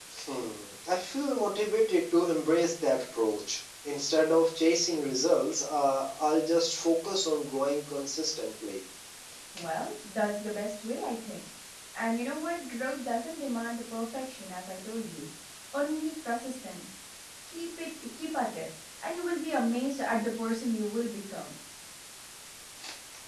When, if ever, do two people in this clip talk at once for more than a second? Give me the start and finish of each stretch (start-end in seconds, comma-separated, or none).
none